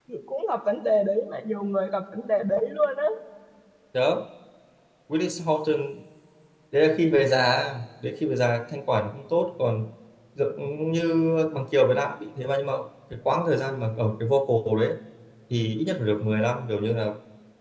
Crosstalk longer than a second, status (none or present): none